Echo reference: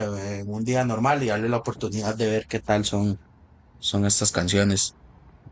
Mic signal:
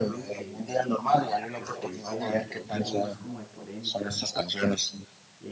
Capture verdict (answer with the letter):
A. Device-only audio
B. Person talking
B